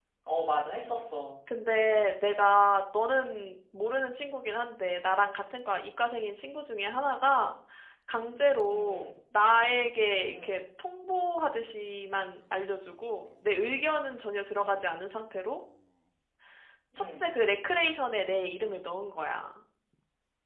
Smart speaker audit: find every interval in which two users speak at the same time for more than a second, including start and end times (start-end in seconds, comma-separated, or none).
none